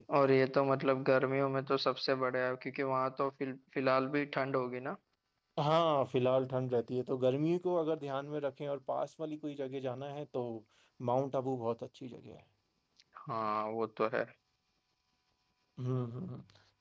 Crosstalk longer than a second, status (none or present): none